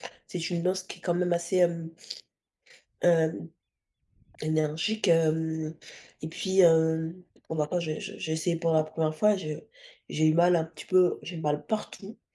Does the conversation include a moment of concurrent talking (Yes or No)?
No